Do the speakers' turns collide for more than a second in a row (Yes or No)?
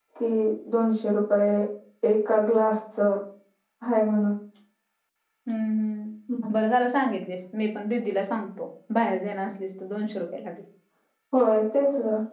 No